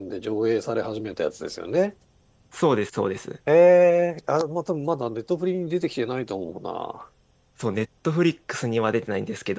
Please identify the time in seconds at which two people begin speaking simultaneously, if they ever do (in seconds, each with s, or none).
none